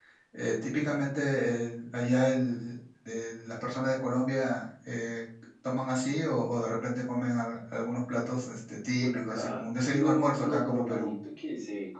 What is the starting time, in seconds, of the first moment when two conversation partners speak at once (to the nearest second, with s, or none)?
9 s